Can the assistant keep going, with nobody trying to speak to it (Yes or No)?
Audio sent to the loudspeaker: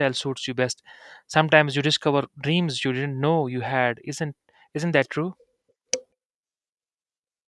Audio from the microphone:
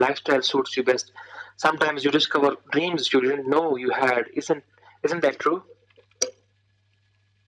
Yes